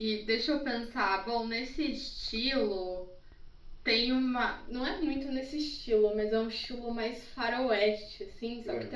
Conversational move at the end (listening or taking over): listening